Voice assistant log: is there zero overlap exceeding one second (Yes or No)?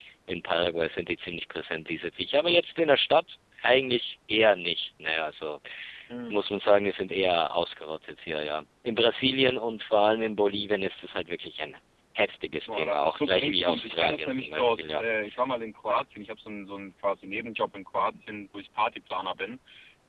No